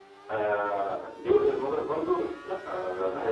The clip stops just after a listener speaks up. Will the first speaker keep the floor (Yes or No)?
Yes